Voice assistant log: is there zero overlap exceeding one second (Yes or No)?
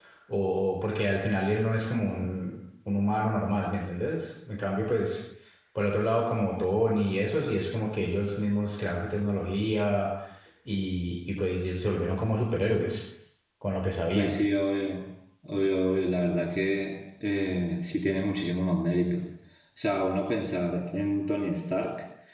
Yes